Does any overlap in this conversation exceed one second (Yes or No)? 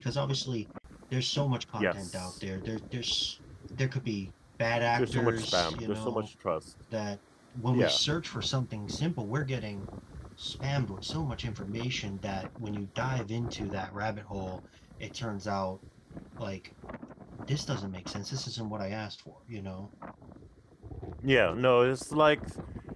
Yes